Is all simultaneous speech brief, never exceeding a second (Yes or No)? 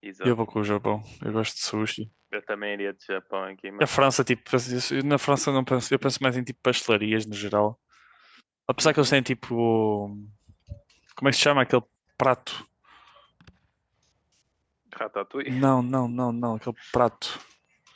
Yes